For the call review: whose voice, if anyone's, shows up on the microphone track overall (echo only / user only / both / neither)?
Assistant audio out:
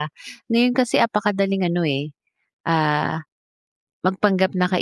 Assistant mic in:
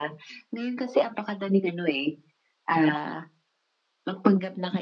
echo only